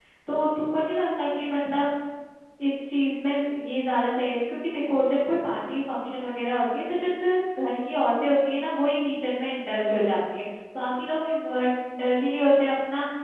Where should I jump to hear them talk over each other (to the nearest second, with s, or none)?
none